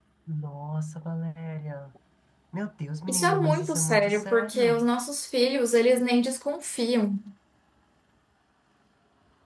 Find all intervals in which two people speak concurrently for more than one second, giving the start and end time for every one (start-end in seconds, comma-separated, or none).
3.1-4.8